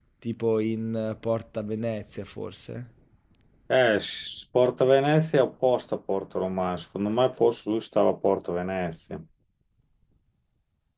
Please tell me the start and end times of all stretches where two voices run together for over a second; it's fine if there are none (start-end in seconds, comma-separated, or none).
none